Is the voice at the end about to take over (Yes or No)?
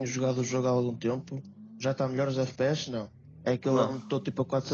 No